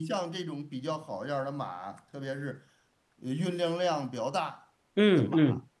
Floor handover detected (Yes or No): No